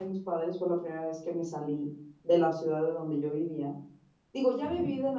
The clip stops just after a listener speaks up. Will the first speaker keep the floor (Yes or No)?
Yes